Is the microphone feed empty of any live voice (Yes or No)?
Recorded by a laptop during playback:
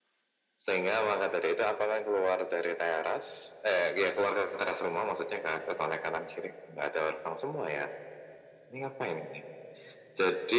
Yes